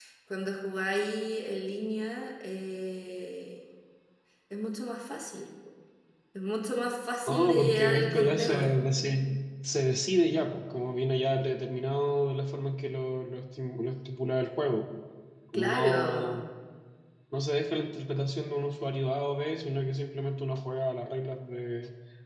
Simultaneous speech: Yes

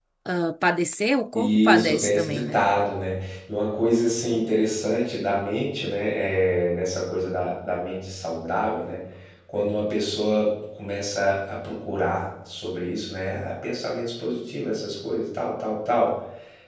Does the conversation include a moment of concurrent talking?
Yes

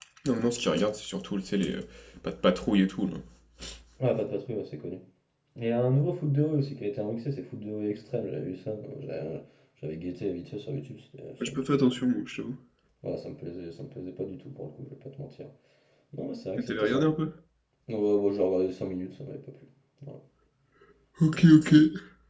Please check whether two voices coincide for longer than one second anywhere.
No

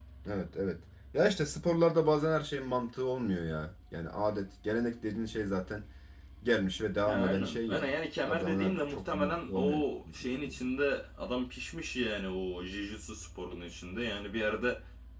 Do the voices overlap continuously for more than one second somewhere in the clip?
Yes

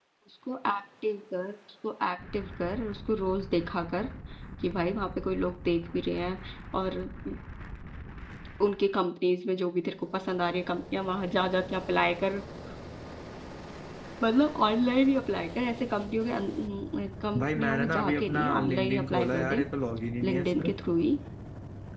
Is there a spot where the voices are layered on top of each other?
Yes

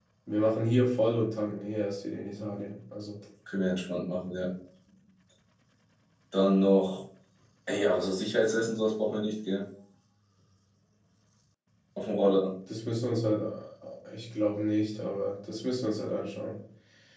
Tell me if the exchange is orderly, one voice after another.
Yes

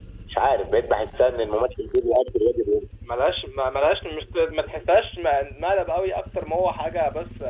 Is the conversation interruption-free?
Yes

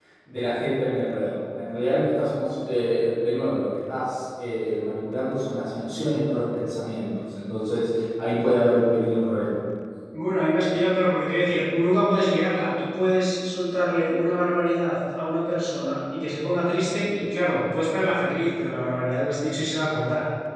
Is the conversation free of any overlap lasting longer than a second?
Yes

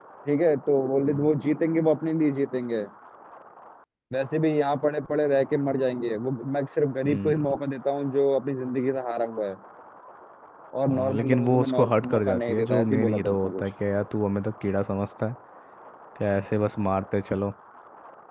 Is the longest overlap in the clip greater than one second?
Yes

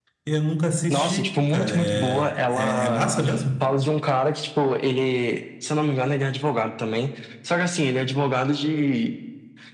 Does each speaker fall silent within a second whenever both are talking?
No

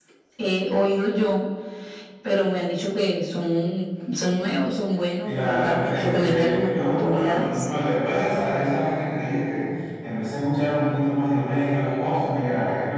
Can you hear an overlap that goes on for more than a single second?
Yes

